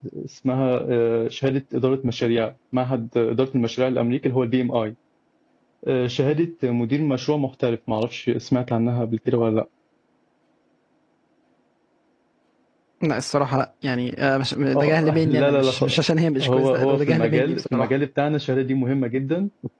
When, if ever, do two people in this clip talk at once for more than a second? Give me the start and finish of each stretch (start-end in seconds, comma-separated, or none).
14.8-15.9, 16.4-17.9